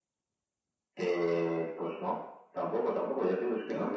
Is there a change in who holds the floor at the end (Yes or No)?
No